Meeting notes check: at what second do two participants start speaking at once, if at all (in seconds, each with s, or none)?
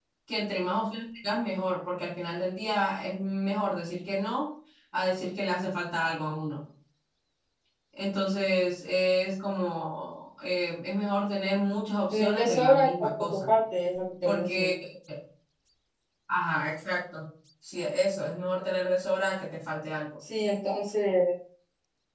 12.1 s